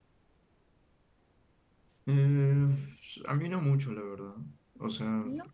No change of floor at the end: Yes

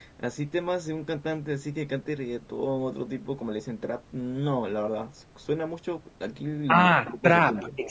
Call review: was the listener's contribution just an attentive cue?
No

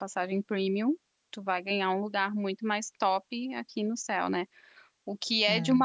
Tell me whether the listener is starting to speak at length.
No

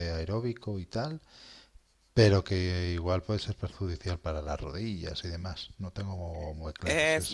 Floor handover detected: Yes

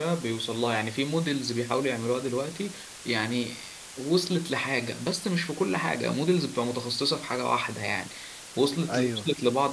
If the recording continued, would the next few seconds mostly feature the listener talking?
No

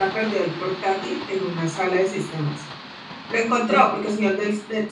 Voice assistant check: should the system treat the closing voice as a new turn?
No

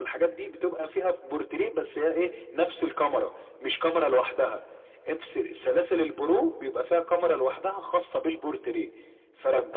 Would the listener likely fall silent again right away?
No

